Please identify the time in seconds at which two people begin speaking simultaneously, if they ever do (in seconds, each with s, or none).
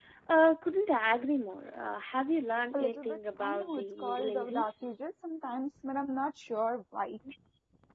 2.7 s